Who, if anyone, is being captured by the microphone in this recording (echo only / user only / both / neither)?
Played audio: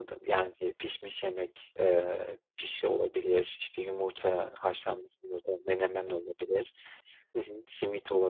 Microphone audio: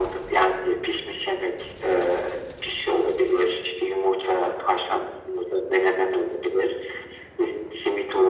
echo only